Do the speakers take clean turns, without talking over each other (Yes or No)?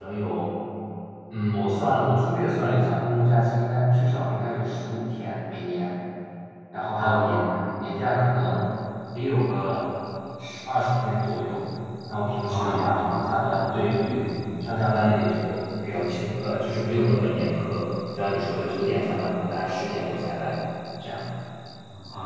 No